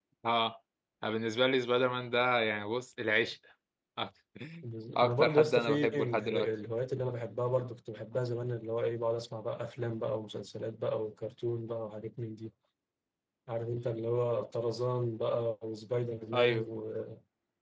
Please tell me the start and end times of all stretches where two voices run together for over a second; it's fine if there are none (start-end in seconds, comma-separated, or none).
5.0-6.5